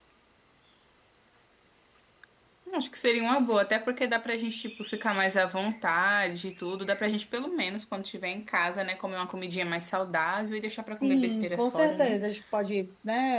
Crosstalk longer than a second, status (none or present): present